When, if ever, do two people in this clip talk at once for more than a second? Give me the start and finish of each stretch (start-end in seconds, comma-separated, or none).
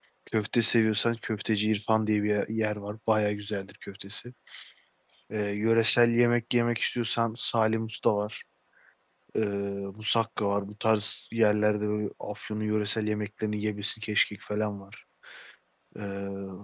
none